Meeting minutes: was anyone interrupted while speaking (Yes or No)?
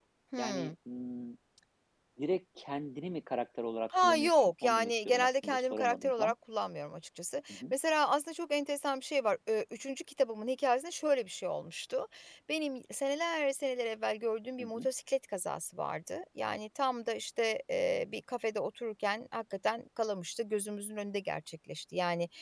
Yes